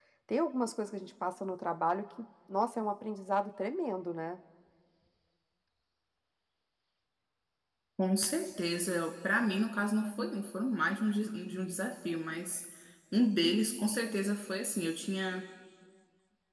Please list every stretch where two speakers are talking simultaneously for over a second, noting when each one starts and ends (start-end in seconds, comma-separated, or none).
none